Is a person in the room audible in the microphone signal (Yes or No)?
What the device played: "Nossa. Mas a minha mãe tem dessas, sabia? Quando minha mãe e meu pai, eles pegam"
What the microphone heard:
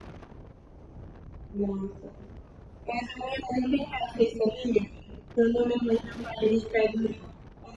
No